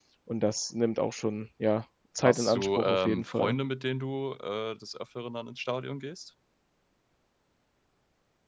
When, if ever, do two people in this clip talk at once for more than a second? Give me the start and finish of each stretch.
2.2-3.5

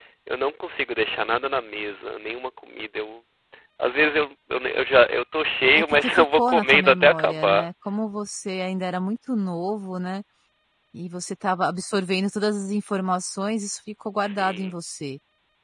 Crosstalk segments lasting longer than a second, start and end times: 5.8-7.7

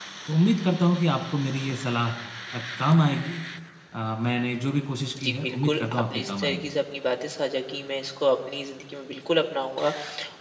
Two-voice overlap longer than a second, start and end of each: 5.2-6.6

